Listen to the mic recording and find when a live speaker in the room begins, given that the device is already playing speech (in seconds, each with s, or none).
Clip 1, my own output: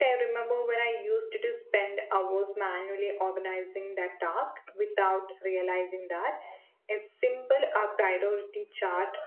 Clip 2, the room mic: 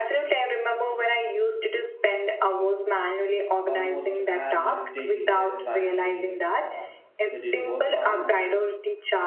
3.7 s